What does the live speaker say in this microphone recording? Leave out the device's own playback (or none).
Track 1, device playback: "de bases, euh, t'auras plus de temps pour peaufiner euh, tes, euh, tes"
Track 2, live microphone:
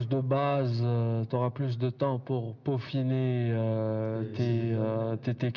C'est, c'est des athlètes.